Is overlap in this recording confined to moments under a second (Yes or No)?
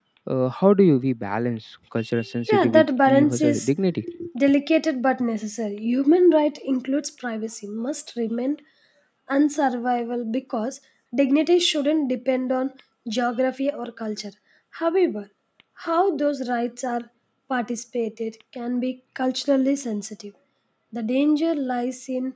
No